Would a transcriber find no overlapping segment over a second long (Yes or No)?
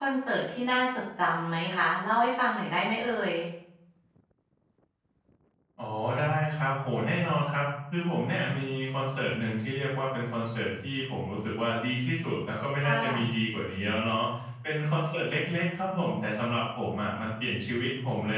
Yes